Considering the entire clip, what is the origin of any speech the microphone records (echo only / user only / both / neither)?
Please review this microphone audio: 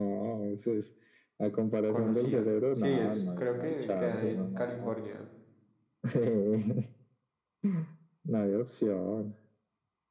both